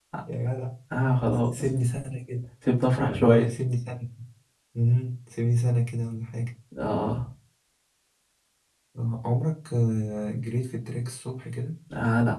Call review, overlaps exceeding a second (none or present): none